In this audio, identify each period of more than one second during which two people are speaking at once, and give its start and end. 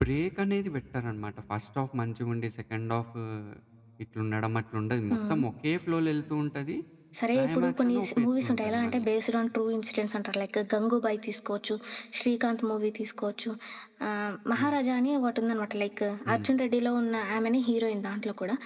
7.3-9.0

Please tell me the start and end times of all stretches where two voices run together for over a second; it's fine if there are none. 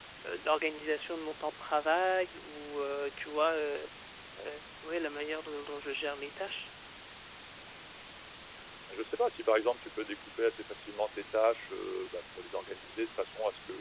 none

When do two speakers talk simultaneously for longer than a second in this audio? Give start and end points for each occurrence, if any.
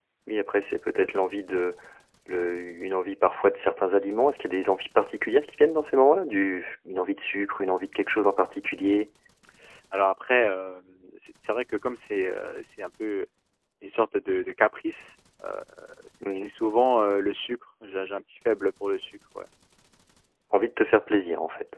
none

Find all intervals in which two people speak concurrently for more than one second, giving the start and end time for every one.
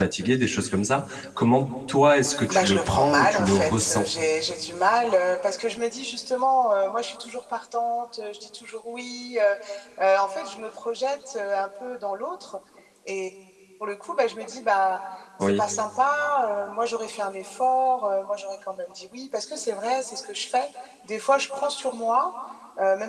2.5-4.1

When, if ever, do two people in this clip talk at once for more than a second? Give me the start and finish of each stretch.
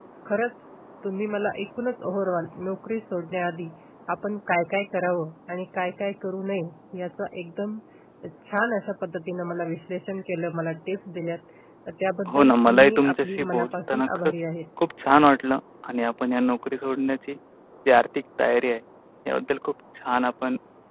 12.3-14.4

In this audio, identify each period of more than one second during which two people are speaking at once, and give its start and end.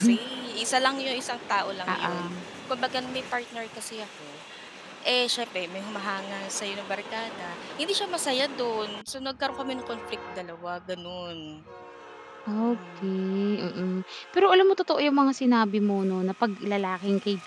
none

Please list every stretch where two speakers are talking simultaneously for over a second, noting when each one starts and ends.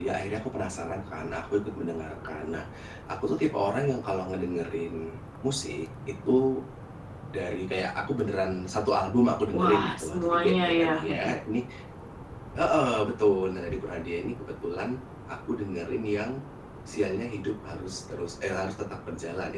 9.5-11.4

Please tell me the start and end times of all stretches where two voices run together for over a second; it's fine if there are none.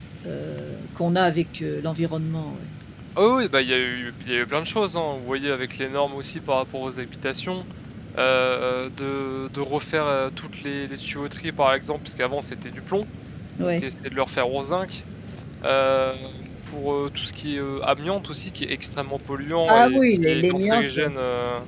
19.7-20.9

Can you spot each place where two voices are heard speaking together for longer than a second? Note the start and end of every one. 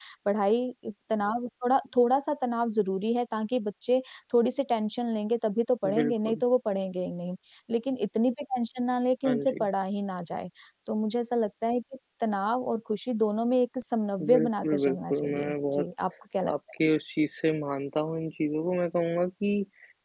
14.2-15.8

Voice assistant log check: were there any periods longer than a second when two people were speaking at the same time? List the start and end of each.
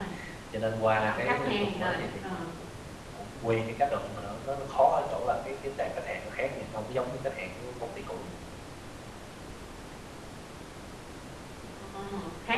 0.9-2.5

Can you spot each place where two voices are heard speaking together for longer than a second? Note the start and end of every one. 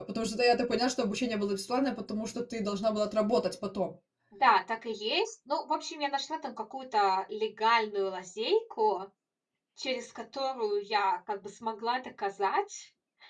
none

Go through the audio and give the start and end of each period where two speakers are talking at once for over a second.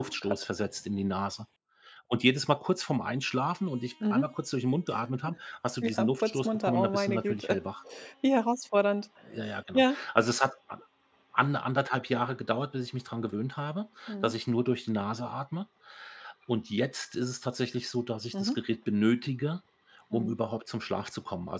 6.0-7.6

